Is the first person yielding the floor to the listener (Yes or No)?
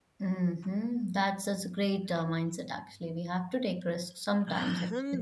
Yes